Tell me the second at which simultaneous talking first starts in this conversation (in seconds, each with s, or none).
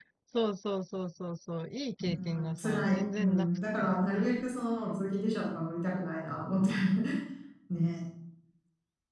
2.0 s